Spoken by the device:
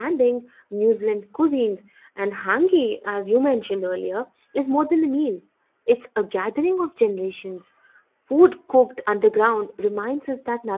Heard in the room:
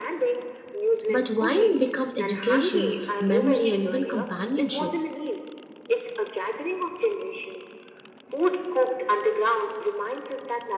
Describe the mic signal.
both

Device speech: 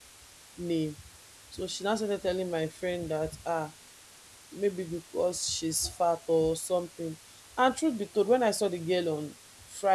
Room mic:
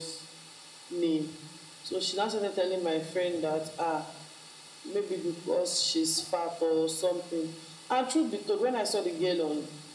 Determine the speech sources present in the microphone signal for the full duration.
echo only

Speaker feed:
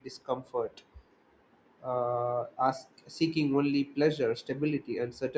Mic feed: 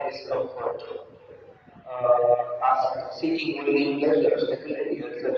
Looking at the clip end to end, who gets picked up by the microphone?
echo only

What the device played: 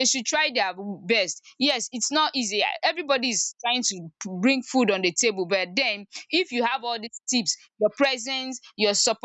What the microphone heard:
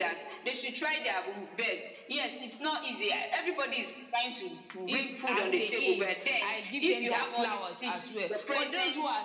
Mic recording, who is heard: both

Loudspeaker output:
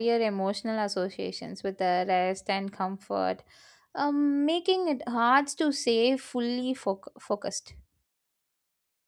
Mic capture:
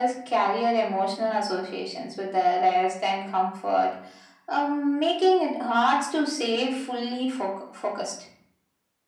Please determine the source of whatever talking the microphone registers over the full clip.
echo only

